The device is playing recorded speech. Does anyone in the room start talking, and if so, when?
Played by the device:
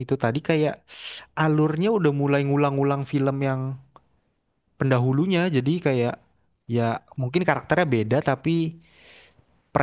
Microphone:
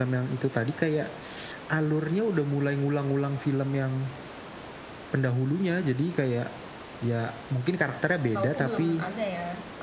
8 s

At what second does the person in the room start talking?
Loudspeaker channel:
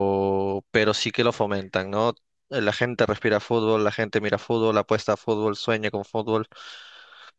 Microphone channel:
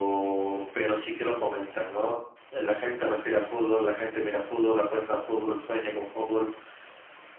none

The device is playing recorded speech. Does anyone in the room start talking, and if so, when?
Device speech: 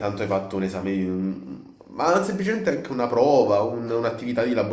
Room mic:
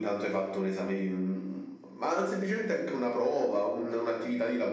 none

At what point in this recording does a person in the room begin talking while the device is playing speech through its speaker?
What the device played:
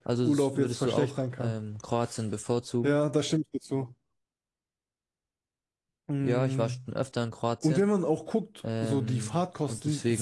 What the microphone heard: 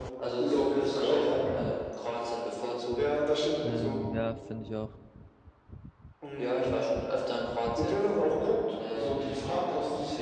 4 s

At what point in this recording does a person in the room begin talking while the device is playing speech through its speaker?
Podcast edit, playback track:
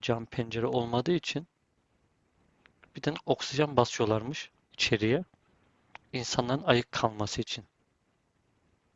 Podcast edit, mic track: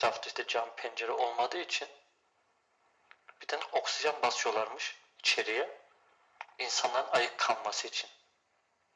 none

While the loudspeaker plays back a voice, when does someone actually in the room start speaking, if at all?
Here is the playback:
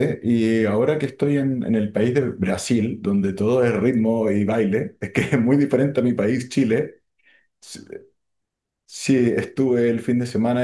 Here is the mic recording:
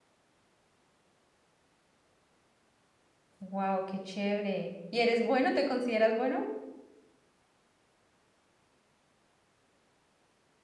3 s

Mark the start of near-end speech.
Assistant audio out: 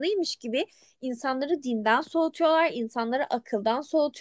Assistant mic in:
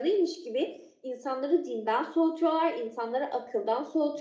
none

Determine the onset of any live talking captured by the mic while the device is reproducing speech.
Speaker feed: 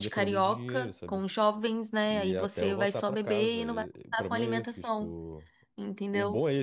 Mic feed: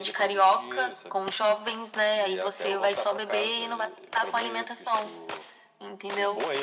none

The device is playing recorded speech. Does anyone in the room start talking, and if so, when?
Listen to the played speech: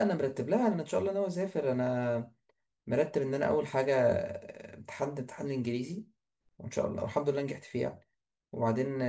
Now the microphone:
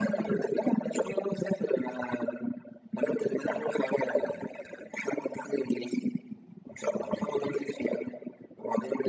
none

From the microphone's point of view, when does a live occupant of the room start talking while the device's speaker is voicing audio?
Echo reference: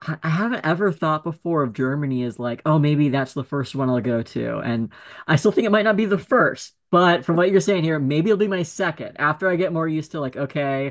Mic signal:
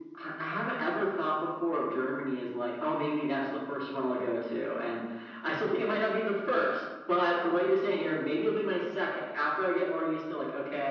none

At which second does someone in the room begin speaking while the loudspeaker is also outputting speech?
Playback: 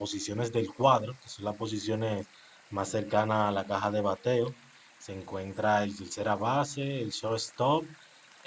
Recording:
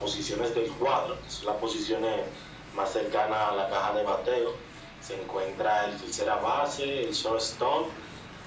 none

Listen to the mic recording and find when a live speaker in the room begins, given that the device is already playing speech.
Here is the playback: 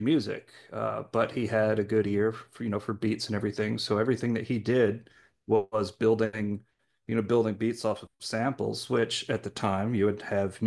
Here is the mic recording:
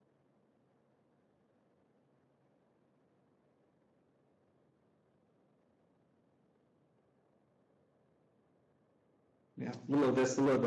10 s

